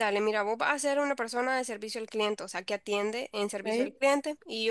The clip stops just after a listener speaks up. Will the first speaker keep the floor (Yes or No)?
Yes